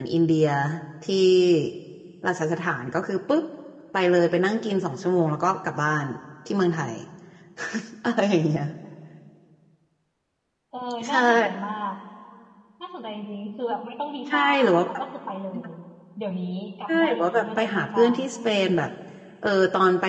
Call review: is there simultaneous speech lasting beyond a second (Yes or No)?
Yes